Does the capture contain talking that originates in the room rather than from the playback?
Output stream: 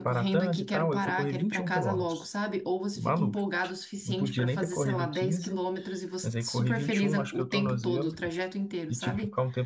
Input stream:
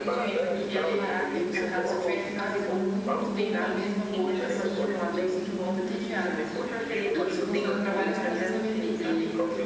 Yes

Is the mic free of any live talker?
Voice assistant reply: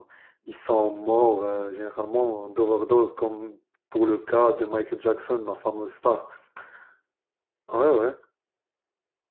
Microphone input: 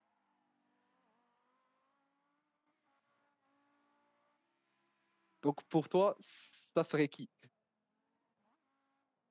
No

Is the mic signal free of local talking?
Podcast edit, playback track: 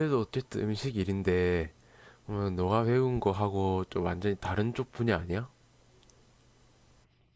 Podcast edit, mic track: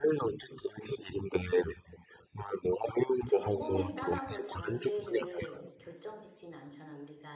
No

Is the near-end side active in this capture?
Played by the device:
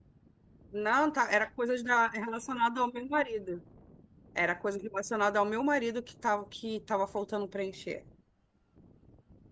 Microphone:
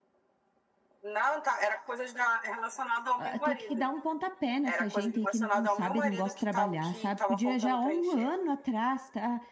Yes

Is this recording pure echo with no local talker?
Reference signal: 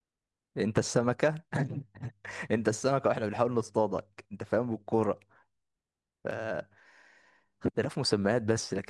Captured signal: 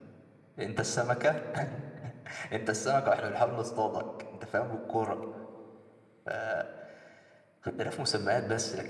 Yes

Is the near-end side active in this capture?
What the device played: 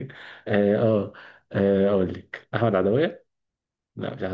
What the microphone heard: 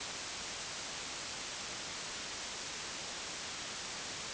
No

